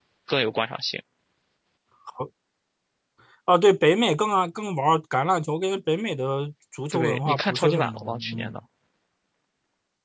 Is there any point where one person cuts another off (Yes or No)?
Yes